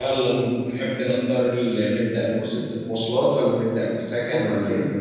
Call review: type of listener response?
taking over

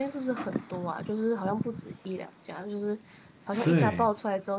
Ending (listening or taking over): listening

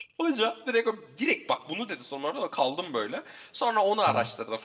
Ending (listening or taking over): listening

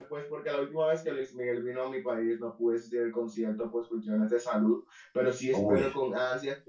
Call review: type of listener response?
listening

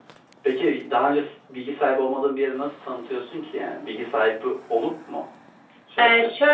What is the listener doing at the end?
taking over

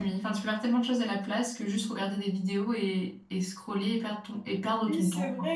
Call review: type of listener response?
taking over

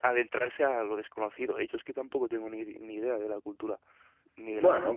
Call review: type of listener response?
taking over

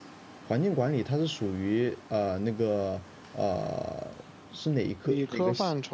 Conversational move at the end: taking over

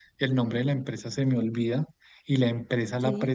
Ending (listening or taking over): listening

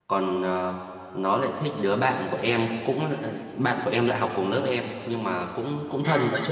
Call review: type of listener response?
listening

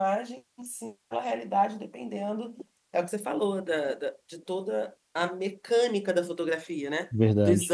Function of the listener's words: listening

